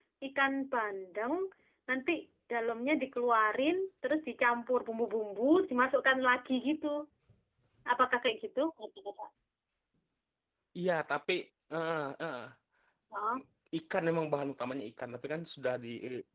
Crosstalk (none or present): none